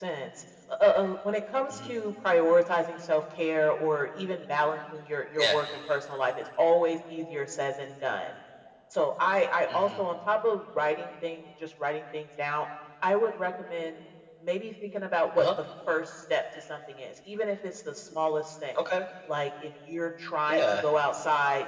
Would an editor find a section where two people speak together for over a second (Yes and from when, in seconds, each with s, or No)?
No